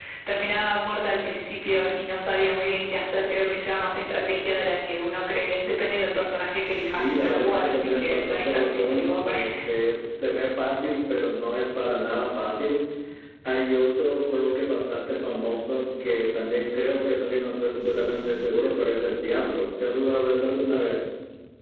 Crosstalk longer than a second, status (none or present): present